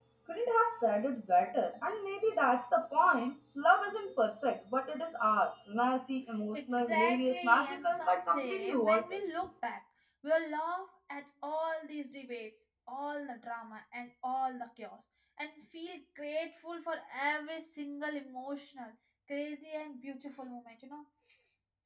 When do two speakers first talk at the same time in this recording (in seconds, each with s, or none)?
6.5 s